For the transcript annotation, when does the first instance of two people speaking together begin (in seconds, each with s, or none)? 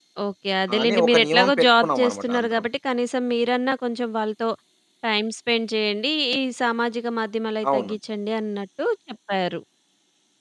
0.8 s